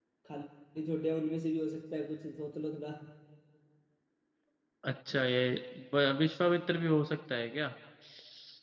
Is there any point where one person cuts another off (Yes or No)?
No